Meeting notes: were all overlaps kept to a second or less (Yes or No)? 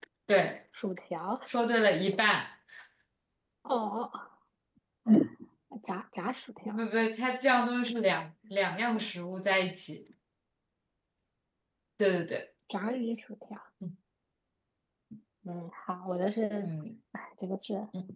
Yes